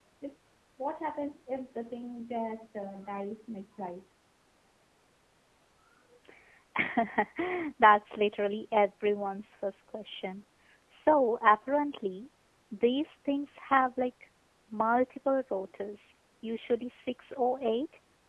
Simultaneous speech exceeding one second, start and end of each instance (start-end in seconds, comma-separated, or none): none